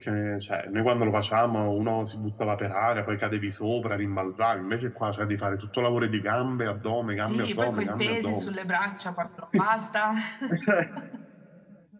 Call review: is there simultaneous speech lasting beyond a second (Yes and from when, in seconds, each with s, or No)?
Yes, from 7.3 s